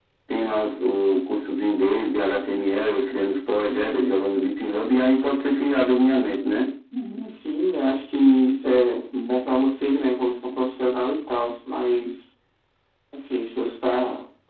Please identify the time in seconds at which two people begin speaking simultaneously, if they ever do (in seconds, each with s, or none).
none